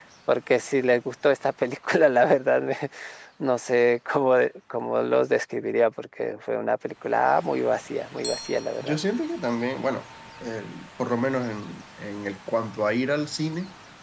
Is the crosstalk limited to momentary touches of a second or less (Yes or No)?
Yes